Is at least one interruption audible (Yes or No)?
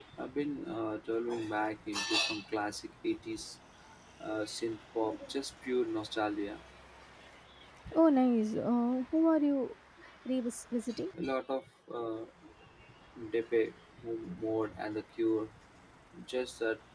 No